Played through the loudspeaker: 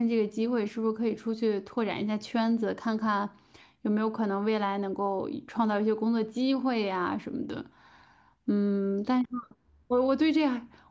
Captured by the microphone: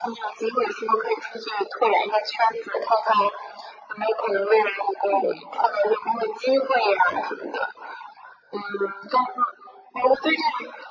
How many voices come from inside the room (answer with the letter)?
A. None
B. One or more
B